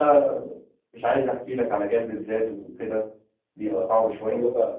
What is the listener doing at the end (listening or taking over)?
taking over